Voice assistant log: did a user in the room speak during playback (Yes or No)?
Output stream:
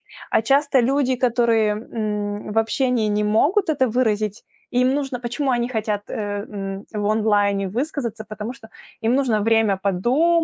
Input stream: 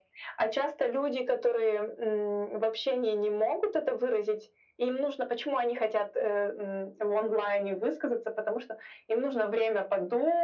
No